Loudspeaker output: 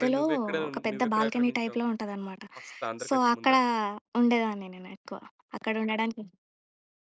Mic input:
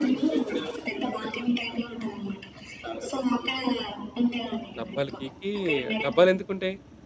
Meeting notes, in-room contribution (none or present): present